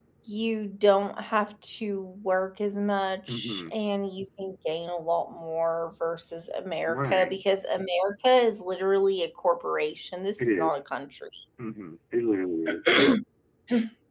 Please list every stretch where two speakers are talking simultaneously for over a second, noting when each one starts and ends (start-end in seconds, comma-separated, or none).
none